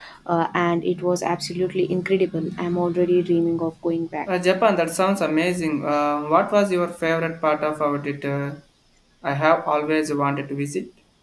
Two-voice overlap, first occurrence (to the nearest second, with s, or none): none